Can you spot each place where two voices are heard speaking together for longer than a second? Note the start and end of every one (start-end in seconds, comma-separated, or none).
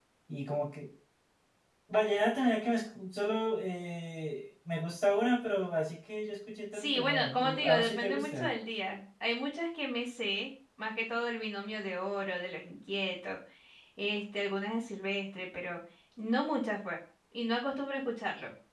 6.7-8.5